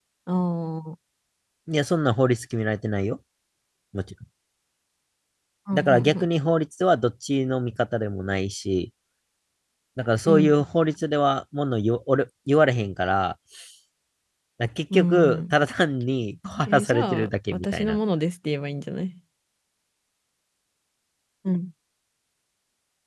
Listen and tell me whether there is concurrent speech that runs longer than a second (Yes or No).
Yes